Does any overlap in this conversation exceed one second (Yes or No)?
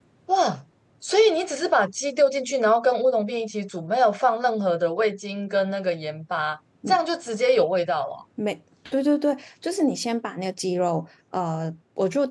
No